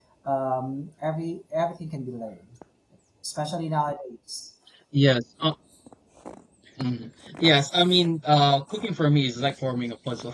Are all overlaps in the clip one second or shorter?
Yes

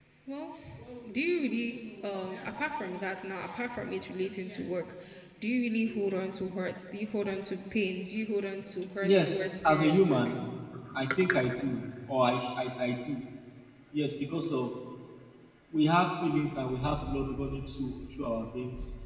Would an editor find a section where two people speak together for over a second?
Yes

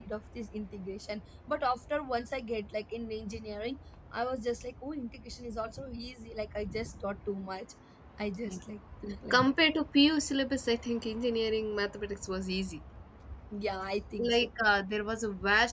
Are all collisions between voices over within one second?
Yes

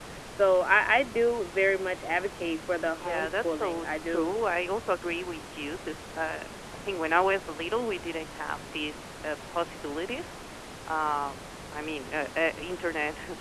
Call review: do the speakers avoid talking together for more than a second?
No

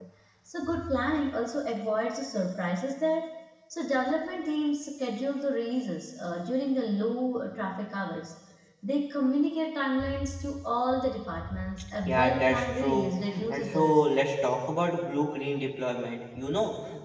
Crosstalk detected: Yes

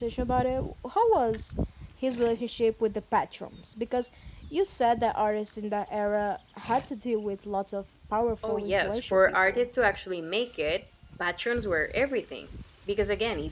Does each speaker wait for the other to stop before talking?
No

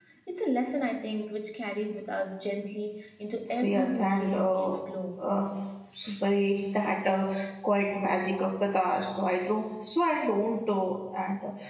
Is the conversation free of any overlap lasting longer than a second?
No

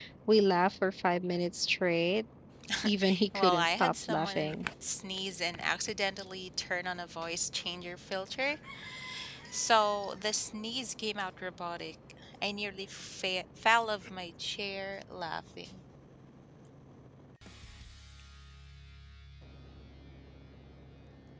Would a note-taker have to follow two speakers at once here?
Yes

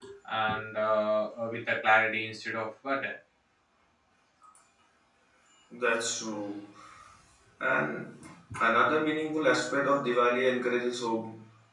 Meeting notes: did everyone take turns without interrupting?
Yes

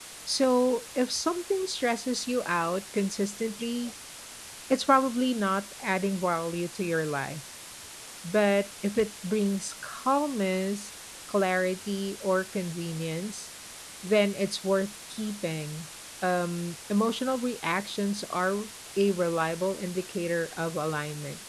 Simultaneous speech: No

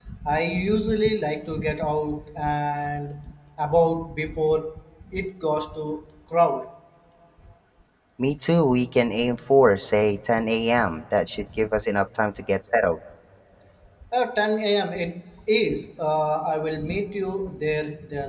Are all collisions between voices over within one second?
Yes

